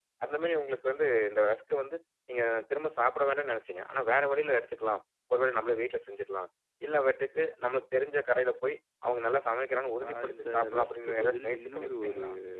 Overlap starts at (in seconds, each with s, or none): 10.0 s